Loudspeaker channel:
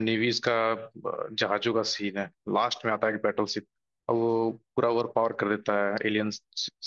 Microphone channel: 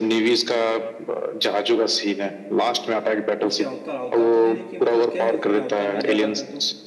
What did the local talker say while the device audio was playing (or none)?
उनसे अवतार अवतार तो नहीं देखी मतलब क्या है उसमें अवतार में ज्यादा कर तो